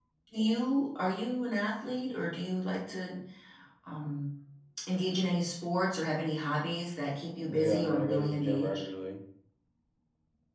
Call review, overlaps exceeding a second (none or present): present